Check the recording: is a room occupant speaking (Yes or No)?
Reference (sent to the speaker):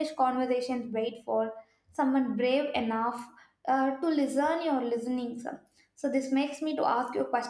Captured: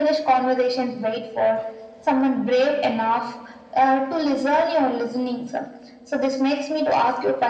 No